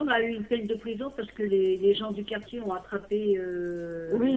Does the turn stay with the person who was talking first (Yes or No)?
No